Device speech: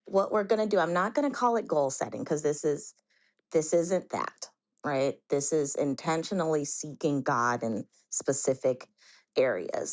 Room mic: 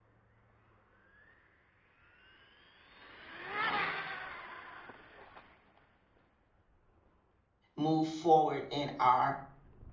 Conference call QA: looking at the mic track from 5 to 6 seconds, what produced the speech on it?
neither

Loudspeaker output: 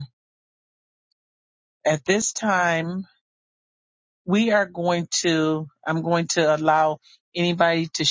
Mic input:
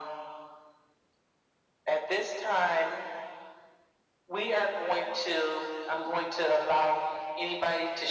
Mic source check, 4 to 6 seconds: echo only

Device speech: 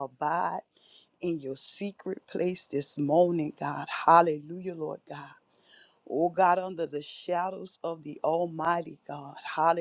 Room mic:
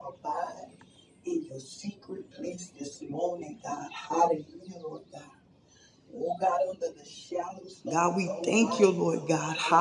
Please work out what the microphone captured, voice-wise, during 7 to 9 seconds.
both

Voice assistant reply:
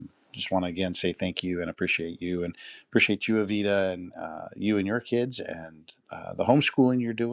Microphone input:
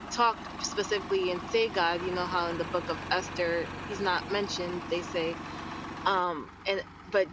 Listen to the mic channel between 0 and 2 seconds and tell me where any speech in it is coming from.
user only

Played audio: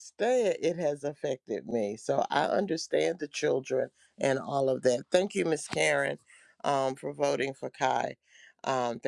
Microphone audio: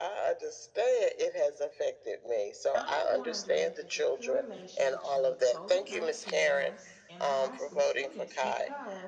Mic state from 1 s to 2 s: echo only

